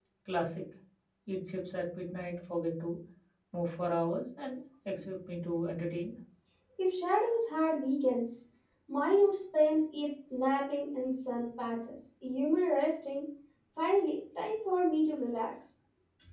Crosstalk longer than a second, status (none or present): none